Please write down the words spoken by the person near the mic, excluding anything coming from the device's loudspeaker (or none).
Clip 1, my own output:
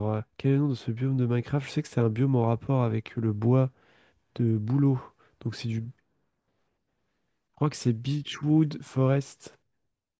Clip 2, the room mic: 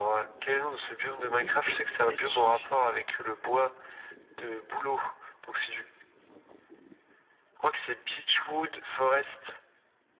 Ah, il est ber- berger.